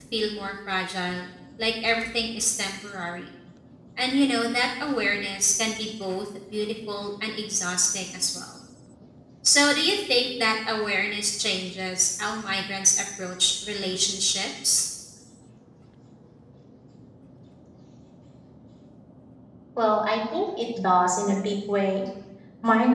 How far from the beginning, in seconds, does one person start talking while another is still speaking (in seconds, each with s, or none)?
none